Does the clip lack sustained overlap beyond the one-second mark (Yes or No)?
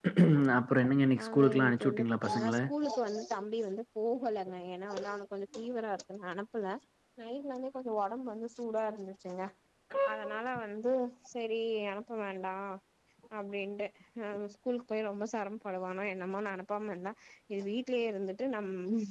No